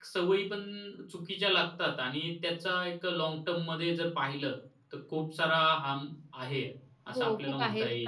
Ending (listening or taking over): taking over